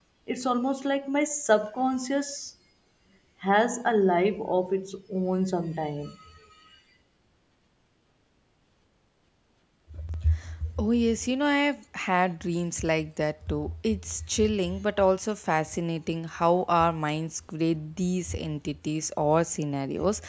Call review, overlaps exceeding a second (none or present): none